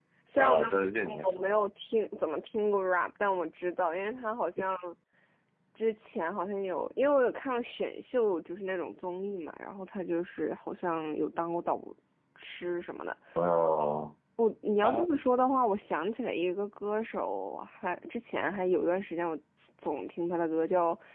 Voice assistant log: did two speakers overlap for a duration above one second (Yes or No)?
No